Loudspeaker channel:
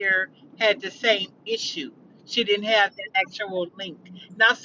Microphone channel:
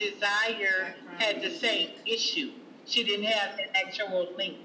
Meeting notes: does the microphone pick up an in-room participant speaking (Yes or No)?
Yes